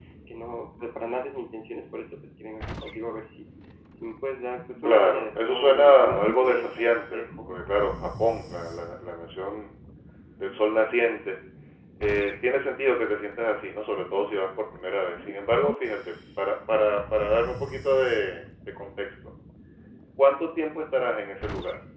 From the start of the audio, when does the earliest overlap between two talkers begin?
4.8 s

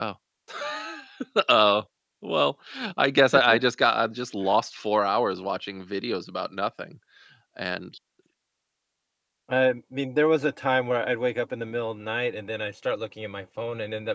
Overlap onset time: none

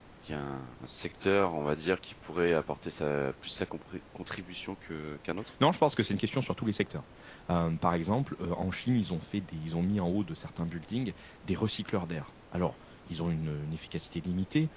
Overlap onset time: none

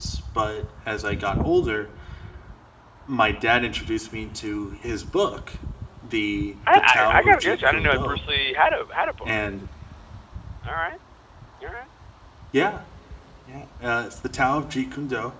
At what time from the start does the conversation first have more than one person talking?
6.7 s

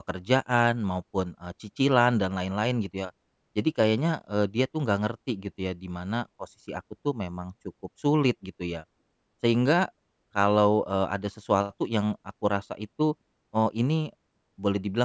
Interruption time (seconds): none

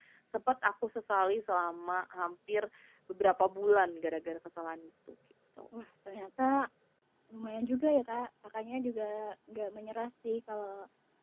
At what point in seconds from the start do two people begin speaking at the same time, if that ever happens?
none

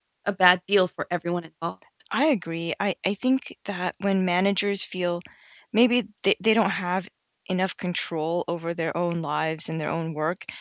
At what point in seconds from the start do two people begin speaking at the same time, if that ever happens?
none

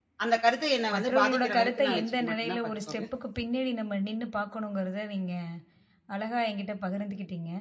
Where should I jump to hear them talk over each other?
0.9 s

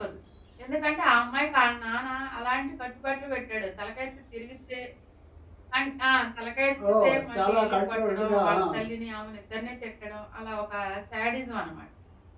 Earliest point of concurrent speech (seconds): 6.8 s

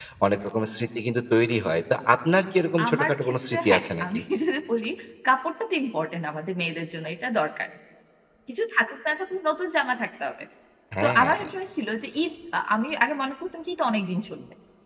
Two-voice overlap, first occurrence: 2.9 s

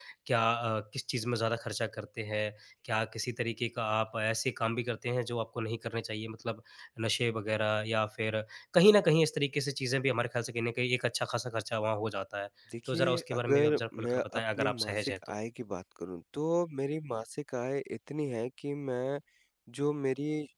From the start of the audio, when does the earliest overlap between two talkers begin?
12.9 s

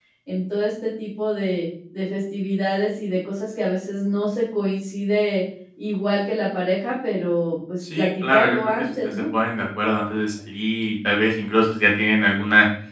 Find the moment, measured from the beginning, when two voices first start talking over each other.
7.8 s

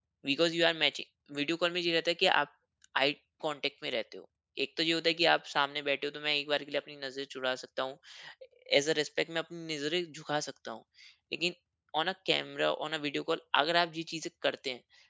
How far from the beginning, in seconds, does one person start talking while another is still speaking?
none

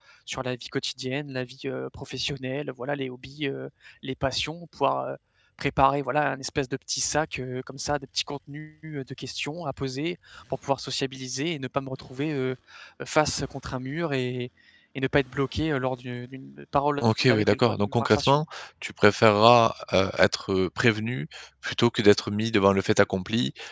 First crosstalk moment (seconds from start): 17.0 s

